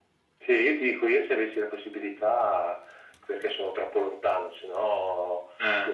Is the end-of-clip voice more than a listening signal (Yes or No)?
No